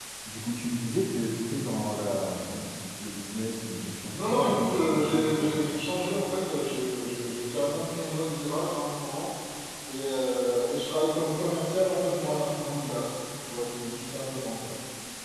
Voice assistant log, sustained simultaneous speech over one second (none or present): present